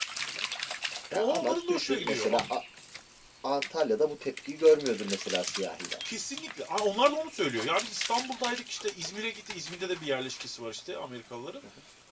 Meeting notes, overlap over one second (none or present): present